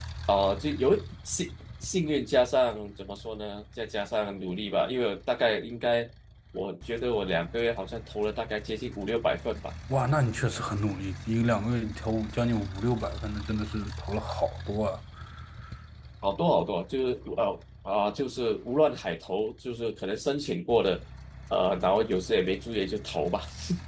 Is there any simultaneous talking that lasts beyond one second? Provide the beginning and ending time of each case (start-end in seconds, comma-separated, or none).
none